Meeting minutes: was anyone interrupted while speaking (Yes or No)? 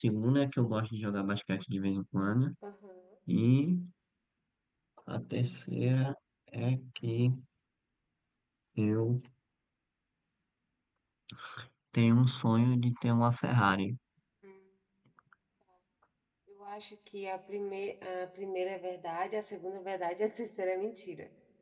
No